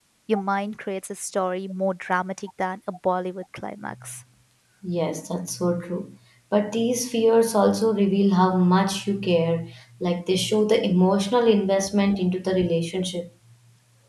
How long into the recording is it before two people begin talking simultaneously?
none

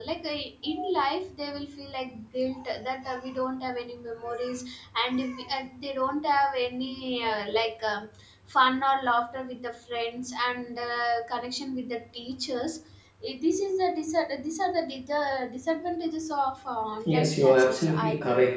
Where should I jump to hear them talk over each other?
17.1 s

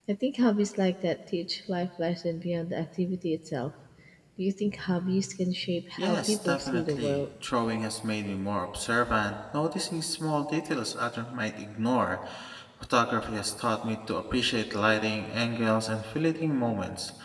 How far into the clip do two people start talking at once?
6.0 s

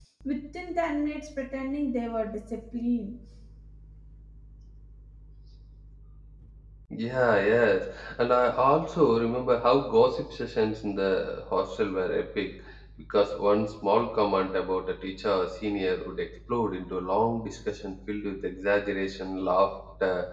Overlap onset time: none

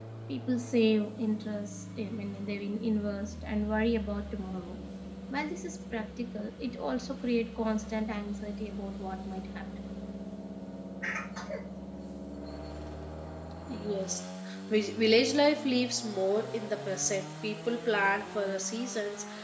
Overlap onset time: none

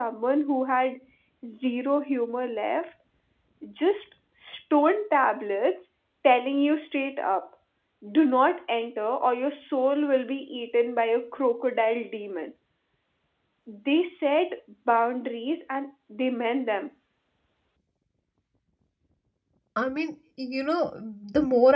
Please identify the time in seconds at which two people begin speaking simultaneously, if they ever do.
none

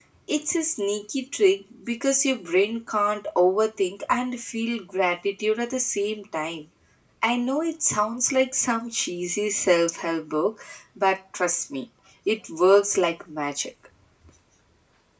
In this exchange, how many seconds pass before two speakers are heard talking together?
none

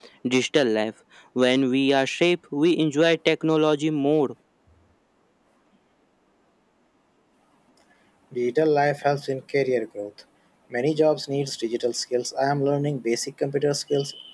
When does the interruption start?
none

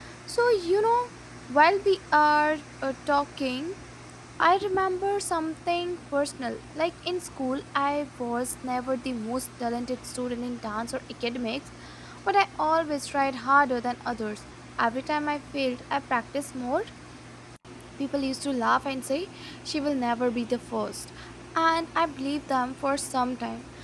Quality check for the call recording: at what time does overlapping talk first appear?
none

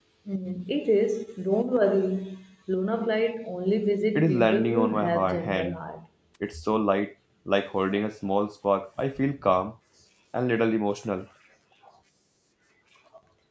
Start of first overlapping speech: 4.2 s

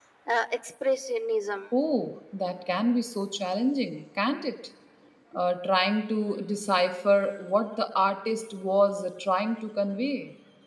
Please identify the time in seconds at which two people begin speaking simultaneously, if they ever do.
none

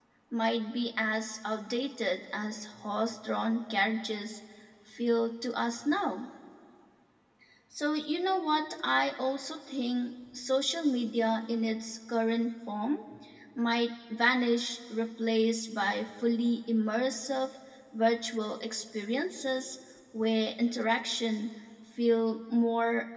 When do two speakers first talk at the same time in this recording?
none

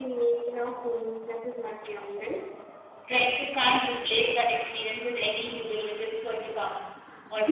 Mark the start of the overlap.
none

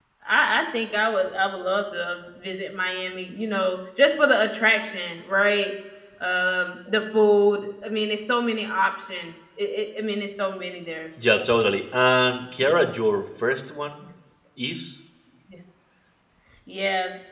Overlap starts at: none

